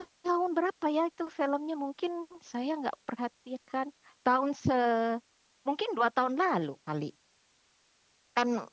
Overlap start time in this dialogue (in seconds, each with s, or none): none